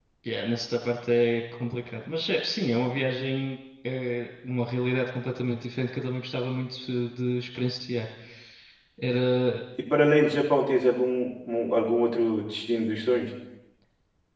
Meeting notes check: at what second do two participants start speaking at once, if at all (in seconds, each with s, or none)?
none